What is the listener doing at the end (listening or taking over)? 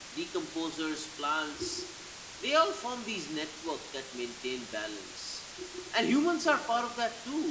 listening